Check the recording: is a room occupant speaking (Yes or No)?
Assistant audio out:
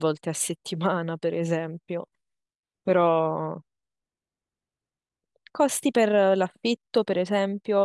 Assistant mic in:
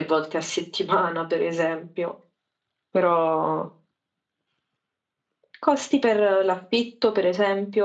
No